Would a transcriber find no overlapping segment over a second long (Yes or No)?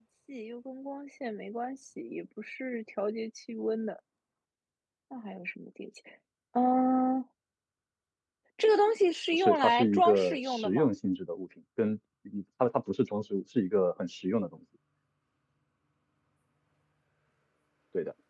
No